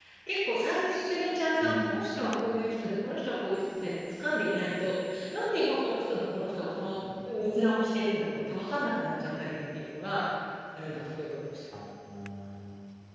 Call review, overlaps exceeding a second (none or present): none